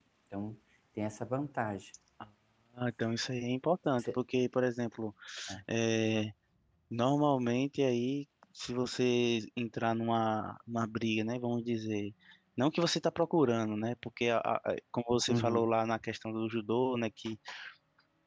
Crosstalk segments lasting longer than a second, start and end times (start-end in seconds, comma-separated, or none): none